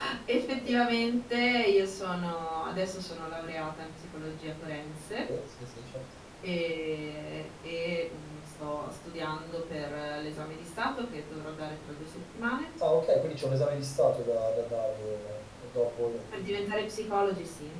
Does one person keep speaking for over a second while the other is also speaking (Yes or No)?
No